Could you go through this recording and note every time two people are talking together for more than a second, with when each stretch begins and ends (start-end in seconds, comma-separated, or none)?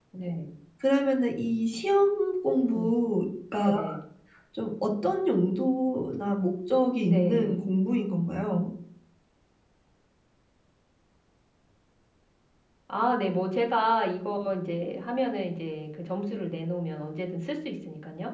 none